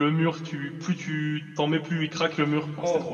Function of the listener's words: taking over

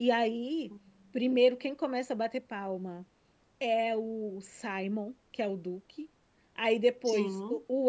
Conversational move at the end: listening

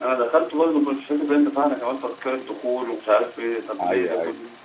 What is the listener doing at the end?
listening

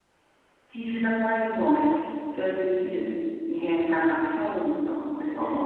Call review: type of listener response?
taking over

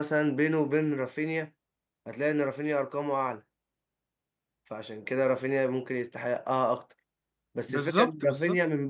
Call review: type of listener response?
listening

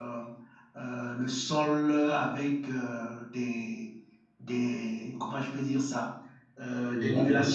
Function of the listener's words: taking over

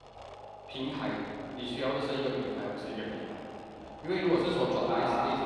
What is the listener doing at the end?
listening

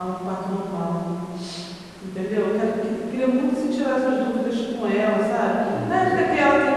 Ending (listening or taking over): listening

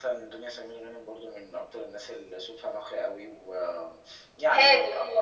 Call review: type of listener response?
taking over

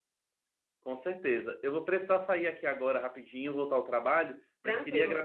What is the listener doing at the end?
listening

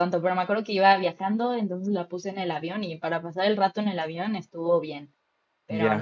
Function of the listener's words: taking over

